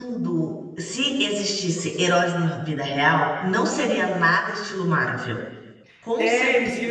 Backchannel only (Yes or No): No